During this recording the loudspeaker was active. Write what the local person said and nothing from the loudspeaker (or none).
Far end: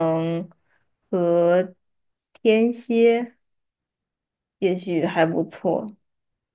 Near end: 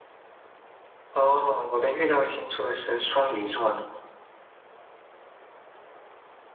哦，我的月亮星座是双鱼座呢。